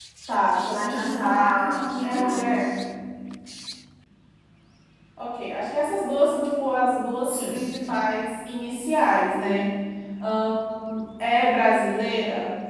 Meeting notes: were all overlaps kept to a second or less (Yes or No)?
No